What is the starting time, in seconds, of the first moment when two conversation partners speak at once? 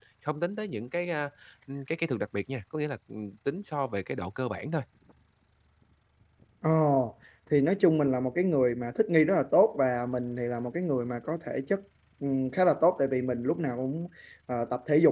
none

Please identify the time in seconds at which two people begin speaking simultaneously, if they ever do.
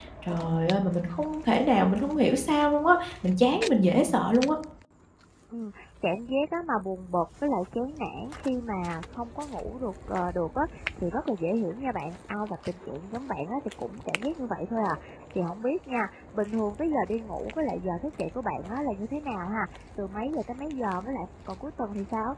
none

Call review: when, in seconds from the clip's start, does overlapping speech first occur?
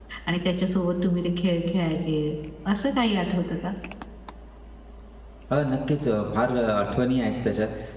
none

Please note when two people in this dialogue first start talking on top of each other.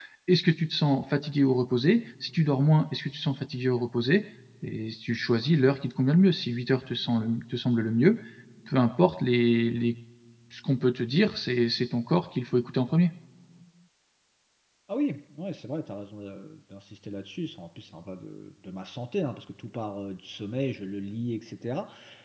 none

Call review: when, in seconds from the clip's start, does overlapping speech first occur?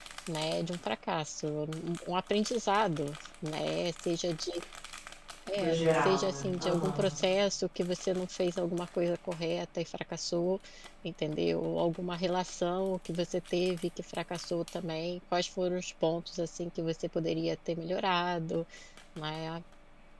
5.6 s

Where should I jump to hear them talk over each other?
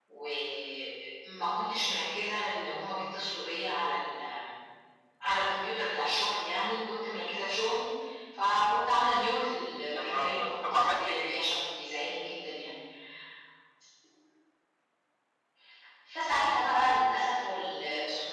9.9 s

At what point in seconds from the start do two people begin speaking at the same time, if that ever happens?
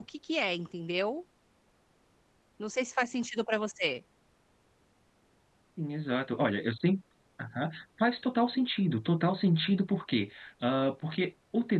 none

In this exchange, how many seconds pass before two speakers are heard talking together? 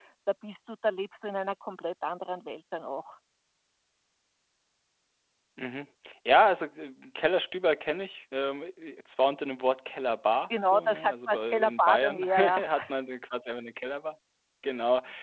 10.5 s

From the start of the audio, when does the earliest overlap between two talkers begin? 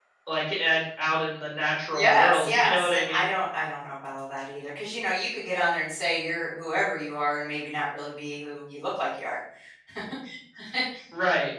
1.9 s

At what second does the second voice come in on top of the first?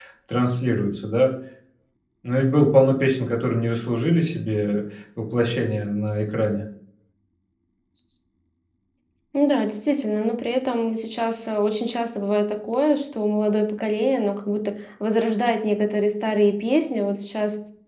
none

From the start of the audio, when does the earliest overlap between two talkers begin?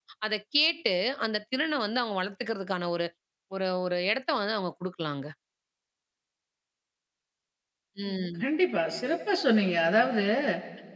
none

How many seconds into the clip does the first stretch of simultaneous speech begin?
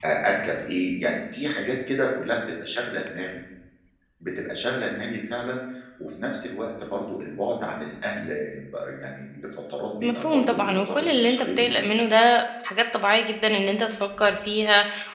10.0 s

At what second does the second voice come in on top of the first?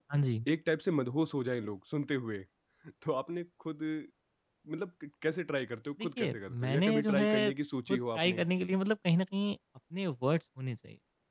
6.0 s

